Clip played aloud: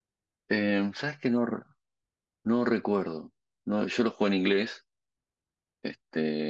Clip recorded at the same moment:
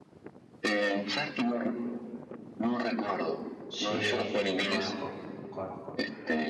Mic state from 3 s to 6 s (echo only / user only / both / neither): both